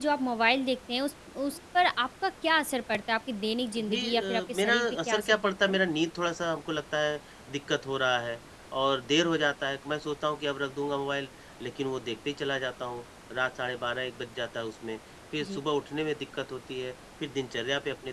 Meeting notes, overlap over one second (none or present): present